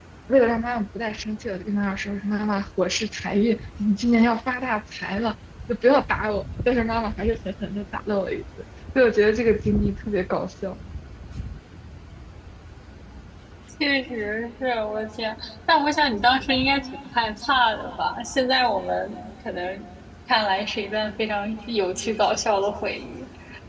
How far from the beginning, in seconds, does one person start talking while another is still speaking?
none

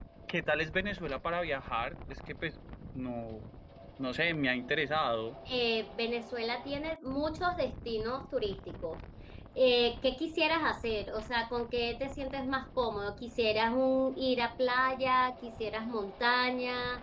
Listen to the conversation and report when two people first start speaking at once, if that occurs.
none

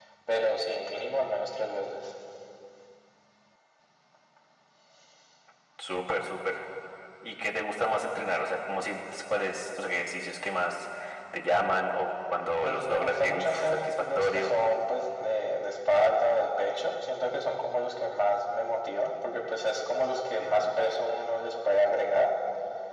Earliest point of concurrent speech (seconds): 12.6 s

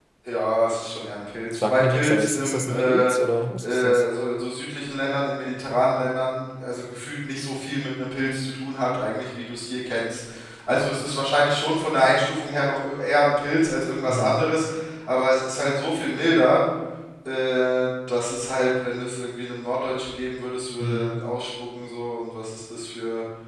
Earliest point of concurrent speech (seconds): 1.6 s

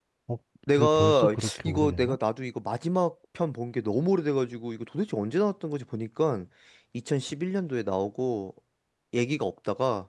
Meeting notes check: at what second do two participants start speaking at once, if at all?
0.8 s

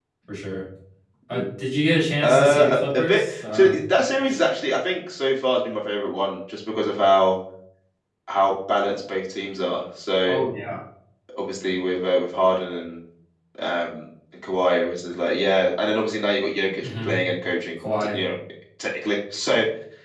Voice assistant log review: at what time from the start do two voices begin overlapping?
2.2 s

